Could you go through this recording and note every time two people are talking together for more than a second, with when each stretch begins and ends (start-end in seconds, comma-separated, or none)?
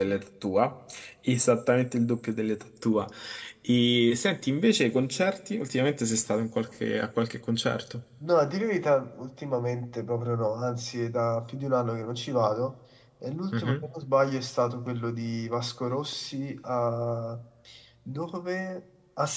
none